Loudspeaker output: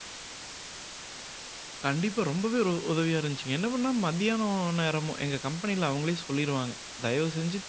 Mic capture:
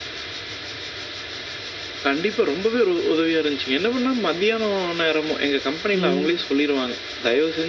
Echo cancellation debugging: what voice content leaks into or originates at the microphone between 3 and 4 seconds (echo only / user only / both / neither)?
echo only